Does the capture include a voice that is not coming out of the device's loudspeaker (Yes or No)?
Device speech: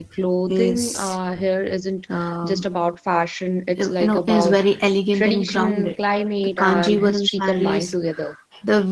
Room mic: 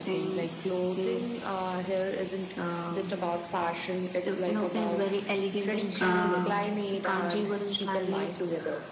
Yes